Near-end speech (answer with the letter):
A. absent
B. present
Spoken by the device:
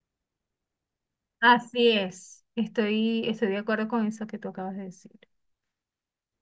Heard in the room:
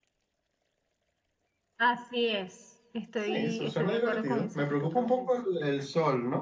B